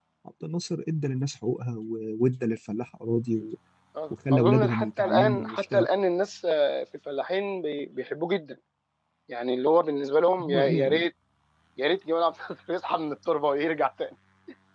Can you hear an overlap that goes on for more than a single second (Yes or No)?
Yes